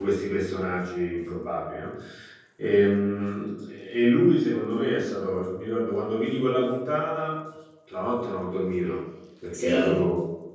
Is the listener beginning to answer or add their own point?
No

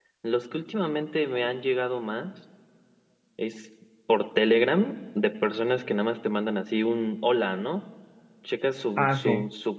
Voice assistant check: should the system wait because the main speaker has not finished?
Yes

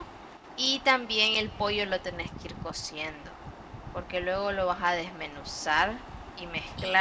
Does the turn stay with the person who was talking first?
No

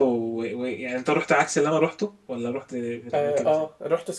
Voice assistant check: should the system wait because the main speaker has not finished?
No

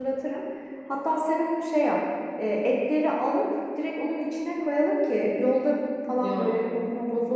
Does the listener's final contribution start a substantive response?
No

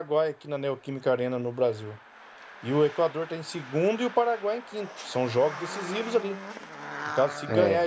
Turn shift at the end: No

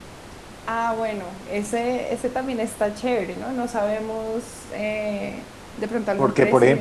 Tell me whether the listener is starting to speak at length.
Yes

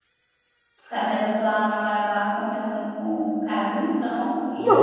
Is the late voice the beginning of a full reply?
Yes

